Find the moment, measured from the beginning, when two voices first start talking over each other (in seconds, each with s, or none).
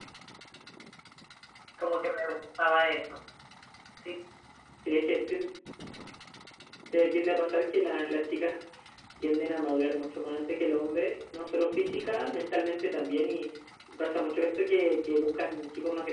none